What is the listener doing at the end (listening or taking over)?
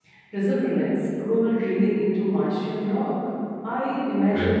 listening